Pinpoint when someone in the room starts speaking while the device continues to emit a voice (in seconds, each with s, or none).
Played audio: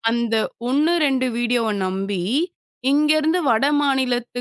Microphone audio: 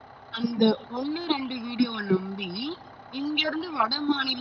none